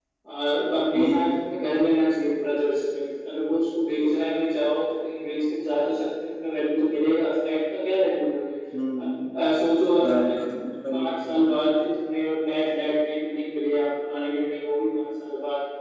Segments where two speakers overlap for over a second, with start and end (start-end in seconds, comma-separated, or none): none